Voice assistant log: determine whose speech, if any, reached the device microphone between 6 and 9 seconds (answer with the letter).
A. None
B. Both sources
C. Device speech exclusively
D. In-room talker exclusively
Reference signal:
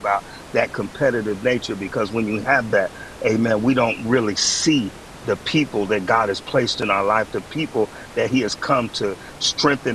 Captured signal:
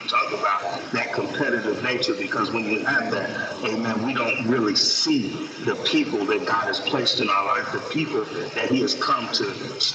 C